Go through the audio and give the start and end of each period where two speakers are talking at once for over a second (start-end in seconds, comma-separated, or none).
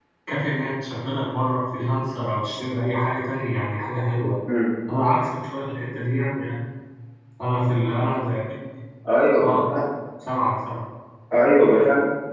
none